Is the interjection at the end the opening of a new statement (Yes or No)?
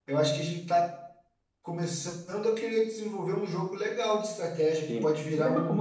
Yes